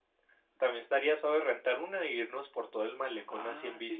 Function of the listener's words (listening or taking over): taking over